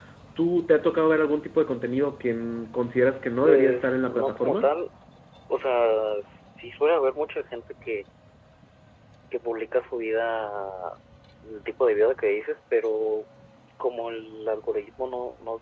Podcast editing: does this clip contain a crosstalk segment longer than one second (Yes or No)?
Yes